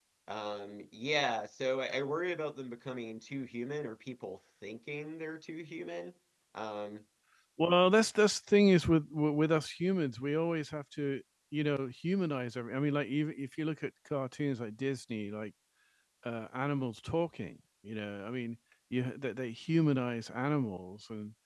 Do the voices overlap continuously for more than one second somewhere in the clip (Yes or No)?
No